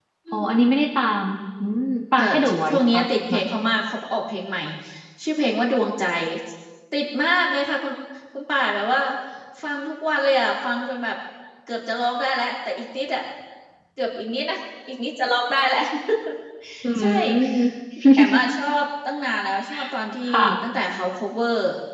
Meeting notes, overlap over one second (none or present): present